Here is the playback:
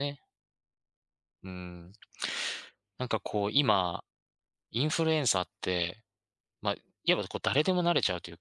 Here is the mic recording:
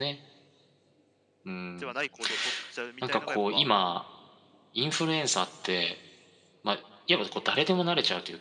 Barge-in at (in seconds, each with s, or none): 1.8 s